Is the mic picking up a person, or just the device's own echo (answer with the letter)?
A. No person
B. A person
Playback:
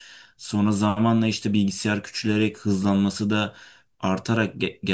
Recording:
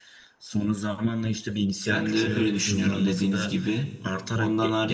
B